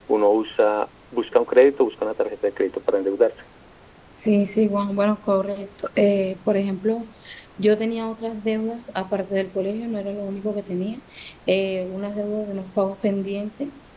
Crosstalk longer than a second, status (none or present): none